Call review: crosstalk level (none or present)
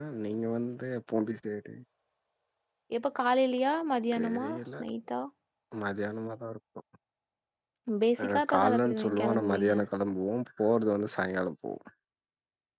present